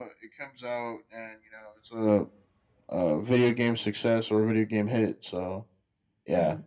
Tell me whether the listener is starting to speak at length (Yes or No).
No